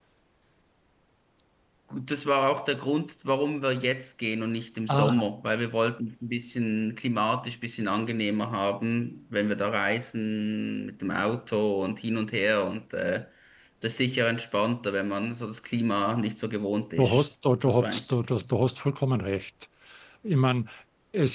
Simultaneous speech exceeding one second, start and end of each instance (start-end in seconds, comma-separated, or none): none